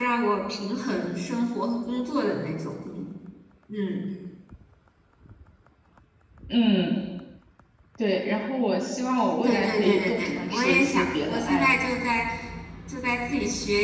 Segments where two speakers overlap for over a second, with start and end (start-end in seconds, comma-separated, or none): 9.4-11.7